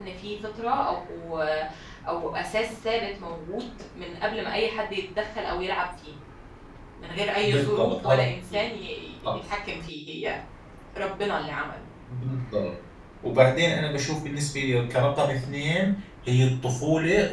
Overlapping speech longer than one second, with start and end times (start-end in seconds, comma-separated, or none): 7.4-8.7